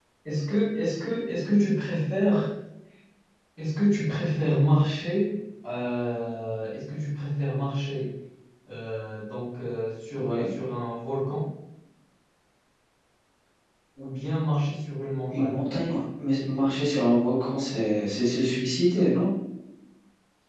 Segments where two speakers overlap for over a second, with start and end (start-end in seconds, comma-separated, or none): none